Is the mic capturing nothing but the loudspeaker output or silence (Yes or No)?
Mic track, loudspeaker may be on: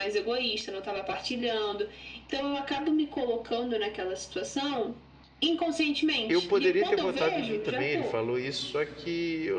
No